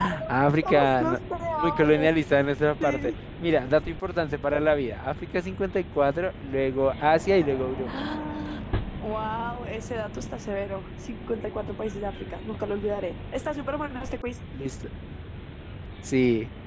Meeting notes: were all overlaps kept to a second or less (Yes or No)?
Yes